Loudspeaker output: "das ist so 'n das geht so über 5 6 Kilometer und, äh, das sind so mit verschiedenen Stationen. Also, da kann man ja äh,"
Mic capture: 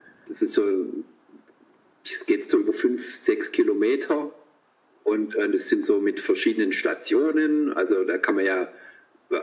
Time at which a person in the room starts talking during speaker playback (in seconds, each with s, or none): none